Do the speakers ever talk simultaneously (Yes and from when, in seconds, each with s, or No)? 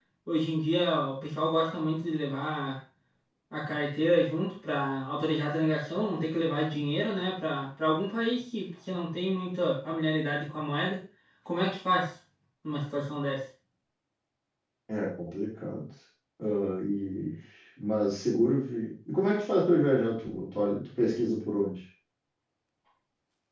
No